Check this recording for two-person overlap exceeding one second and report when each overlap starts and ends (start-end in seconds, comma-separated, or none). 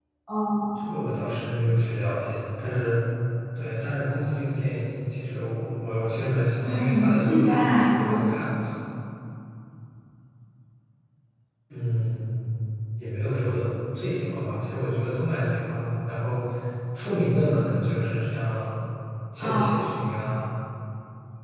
6.6-8.2